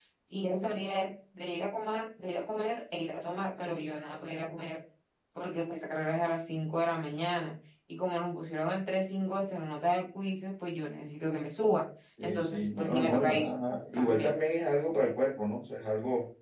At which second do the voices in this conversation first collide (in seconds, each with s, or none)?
12.2 s